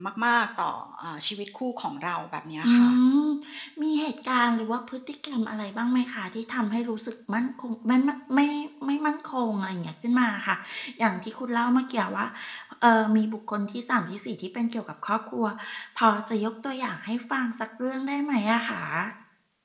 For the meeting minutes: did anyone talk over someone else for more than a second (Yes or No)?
No